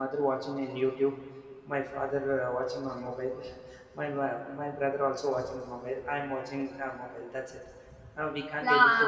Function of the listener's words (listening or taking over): taking over